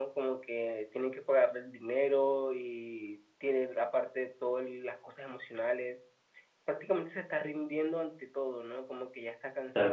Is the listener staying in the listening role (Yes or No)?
No